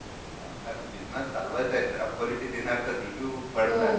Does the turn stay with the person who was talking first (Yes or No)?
No